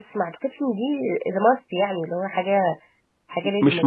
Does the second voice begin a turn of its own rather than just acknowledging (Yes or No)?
Yes